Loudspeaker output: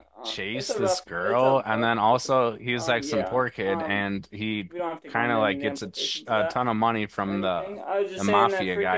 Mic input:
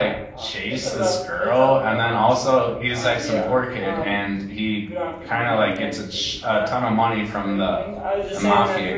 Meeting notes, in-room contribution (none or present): none